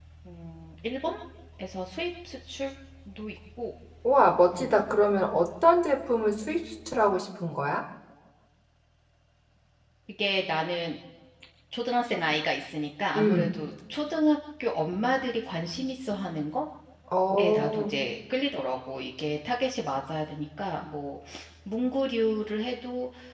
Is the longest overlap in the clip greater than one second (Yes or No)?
No